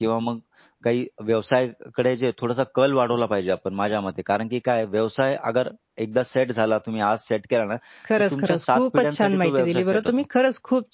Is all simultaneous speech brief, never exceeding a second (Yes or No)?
No